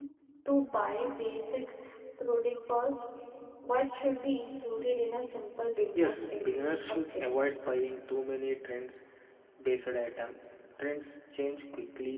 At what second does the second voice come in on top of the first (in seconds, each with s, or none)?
5.9 s